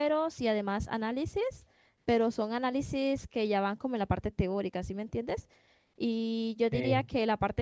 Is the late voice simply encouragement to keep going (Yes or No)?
Yes